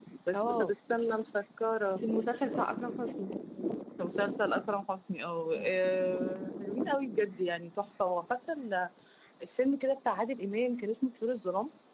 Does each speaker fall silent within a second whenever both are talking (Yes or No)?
Yes